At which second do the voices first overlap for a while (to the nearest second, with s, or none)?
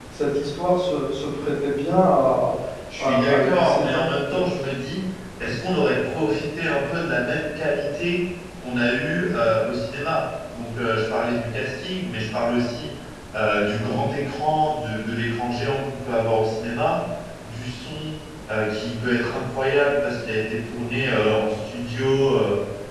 3 s